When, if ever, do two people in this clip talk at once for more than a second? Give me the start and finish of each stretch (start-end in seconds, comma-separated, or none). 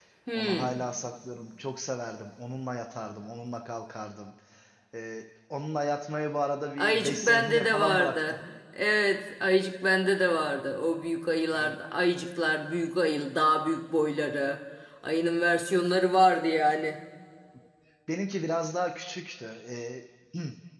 6.8-8.4